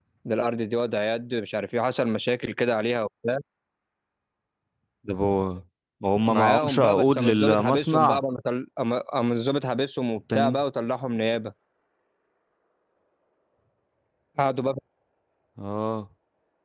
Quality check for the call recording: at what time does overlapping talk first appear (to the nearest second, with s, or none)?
6 s